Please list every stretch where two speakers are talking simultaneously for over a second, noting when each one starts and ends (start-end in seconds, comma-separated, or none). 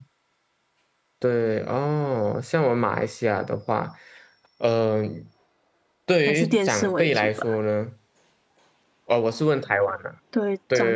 6.3-7.5